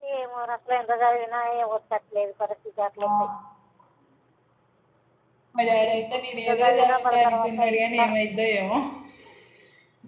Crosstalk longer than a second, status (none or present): present